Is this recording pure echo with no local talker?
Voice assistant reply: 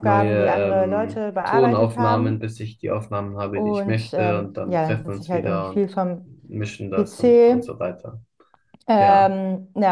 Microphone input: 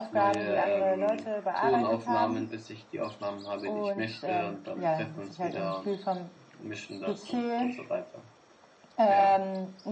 Yes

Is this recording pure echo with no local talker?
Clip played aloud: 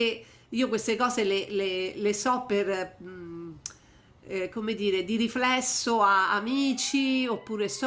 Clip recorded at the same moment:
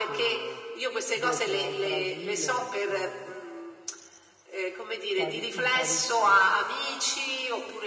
No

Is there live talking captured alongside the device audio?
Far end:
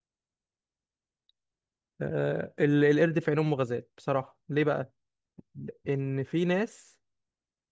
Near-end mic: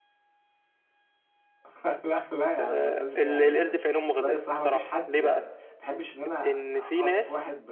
Yes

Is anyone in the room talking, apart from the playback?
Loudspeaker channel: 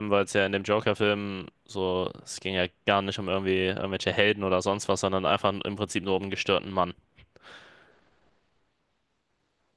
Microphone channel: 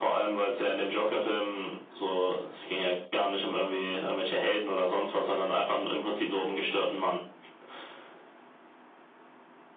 No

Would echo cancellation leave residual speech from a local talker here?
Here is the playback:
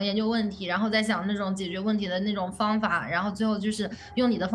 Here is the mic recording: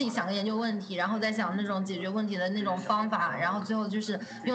Yes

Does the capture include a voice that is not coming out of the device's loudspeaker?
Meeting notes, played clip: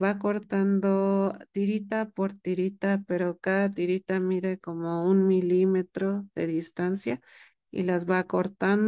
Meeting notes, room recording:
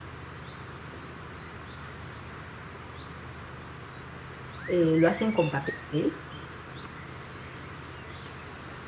Yes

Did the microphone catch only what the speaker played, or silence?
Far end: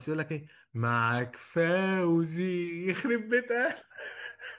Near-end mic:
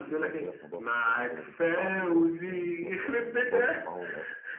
No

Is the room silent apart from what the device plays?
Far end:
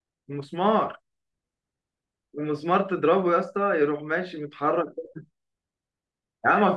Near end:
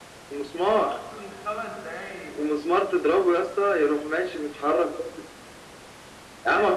No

